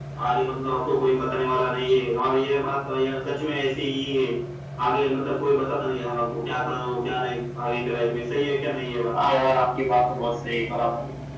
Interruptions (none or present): none